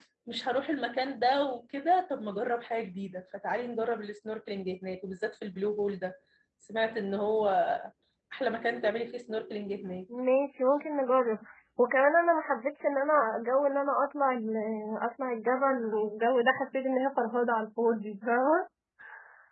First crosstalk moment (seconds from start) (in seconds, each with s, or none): none